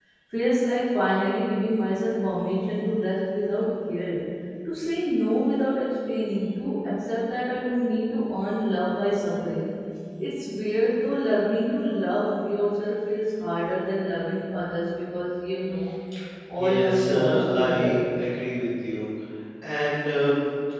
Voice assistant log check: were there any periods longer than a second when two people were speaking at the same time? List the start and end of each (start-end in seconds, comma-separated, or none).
16.6-17.9